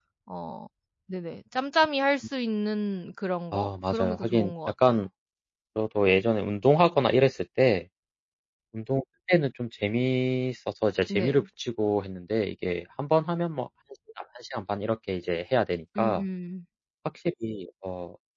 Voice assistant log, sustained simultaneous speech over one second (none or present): present